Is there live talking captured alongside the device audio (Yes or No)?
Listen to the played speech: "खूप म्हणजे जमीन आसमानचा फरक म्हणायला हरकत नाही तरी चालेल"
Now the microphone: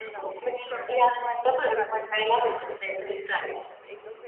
Yes